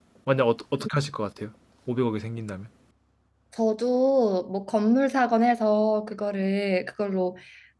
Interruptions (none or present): none